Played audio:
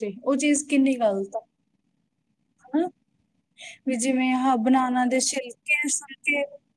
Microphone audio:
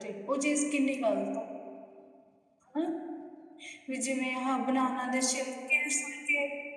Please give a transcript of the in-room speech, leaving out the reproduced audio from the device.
none

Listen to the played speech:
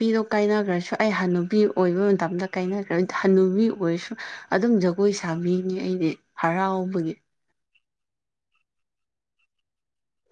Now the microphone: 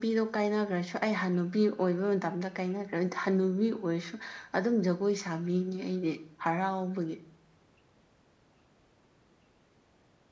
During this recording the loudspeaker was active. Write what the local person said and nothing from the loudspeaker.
none

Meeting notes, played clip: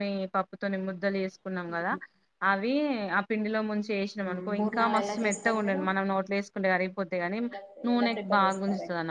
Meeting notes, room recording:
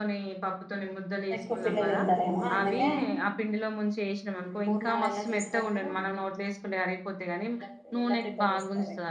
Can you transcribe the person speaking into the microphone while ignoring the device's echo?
ఎక్కువ పిల్లలు తింటారేమో అందుకే

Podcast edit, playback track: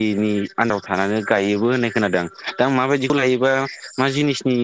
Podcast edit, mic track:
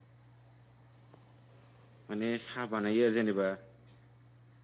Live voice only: माने साहा बानायो आरो जेनेबा

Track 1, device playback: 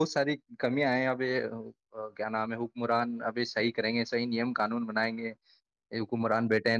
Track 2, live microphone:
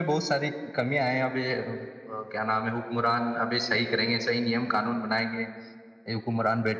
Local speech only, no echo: none

